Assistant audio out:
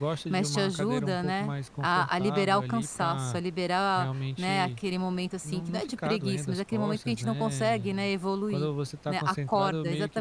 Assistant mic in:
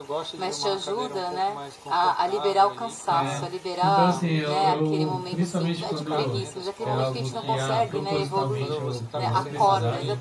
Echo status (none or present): present